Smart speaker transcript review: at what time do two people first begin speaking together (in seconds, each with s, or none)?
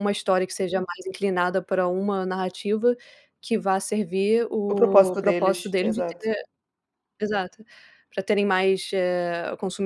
4.7 s